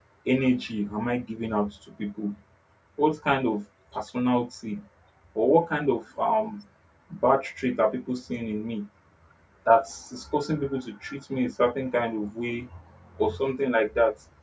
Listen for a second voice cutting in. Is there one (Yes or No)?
No